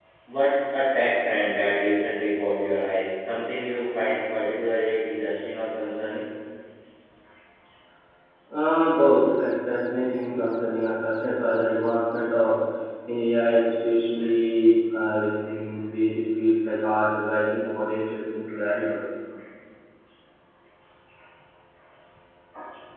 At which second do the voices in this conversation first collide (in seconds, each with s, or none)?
none